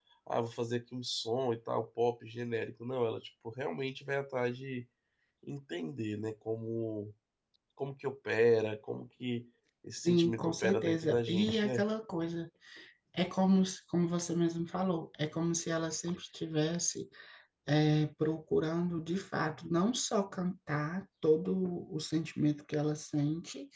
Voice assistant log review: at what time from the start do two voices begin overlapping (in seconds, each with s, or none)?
10.0 s